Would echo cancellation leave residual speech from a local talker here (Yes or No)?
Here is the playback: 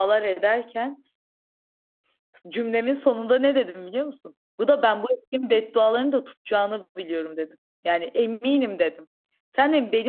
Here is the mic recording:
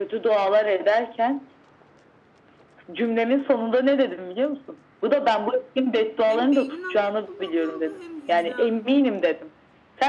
Yes